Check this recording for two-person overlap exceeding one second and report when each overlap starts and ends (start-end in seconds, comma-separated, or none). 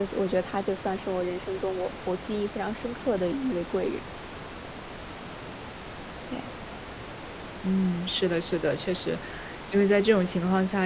none